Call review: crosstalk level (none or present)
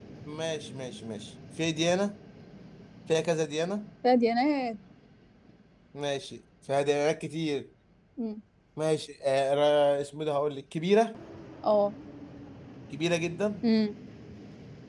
none